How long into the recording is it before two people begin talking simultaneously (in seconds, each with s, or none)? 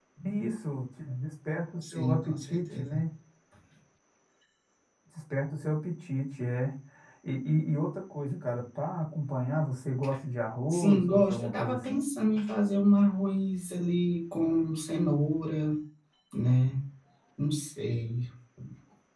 1.8 s